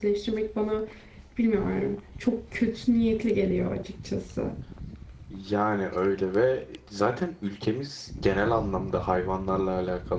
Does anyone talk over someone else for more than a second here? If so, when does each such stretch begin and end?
none

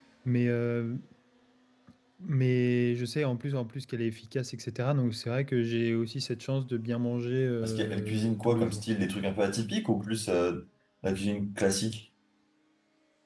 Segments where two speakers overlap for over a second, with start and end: 7.6-8.8

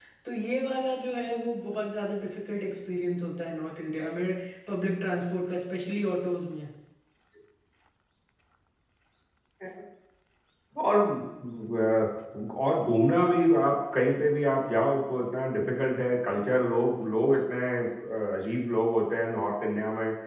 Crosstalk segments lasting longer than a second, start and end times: none

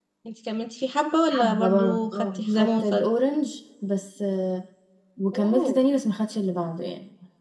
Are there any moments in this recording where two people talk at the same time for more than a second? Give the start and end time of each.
1.3-3.1

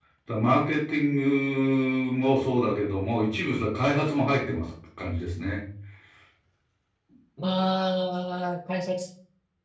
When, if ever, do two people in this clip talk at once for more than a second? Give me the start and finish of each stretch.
none

